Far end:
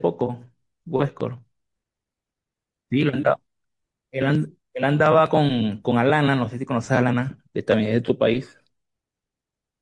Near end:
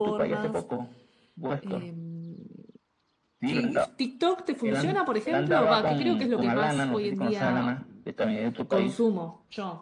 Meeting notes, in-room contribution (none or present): present